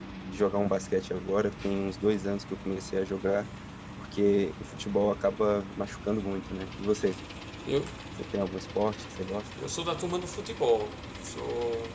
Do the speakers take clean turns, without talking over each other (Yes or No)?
Yes